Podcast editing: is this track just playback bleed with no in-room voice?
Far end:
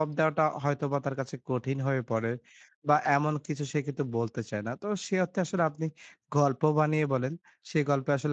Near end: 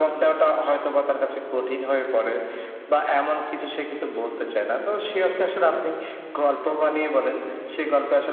Yes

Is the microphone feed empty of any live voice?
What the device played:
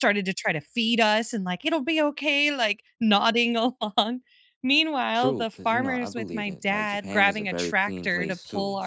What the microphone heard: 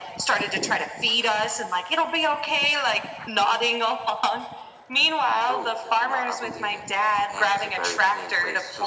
Yes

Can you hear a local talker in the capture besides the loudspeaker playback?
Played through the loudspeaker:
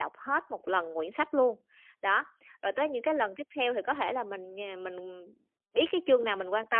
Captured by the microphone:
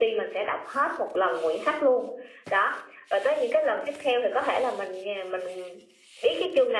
No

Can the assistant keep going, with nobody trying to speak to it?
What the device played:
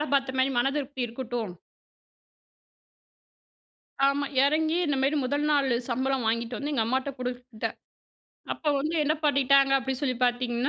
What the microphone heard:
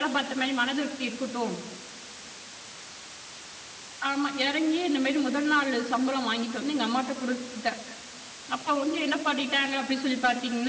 Yes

